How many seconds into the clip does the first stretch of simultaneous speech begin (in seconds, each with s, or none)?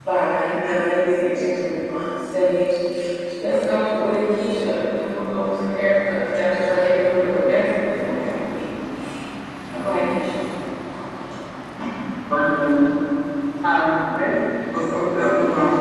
none